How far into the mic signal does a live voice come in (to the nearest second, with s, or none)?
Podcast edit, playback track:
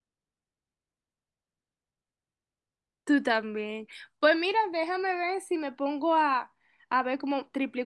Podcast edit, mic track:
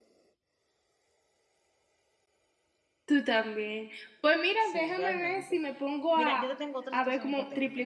5 s